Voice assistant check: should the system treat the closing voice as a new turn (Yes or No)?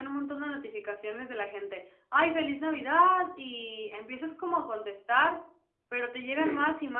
No